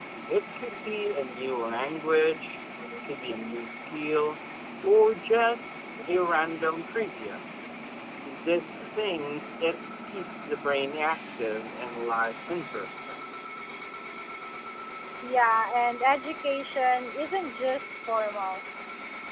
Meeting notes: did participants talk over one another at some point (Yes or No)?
No